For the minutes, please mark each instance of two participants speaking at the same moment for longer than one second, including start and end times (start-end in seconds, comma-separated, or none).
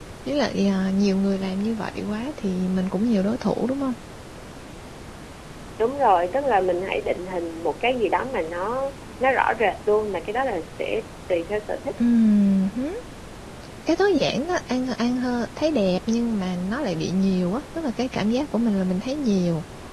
none